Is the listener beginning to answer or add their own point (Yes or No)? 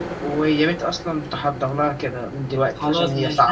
Yes